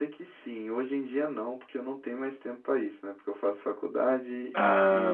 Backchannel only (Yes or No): Yes